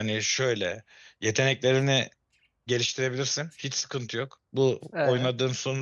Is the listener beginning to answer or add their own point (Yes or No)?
No